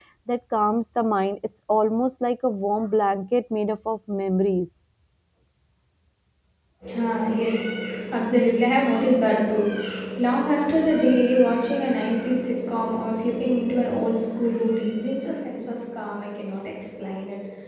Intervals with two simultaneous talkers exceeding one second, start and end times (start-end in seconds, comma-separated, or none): none